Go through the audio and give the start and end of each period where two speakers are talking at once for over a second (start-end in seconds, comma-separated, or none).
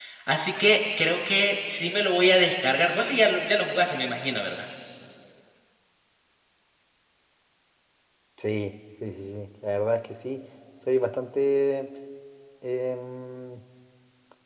none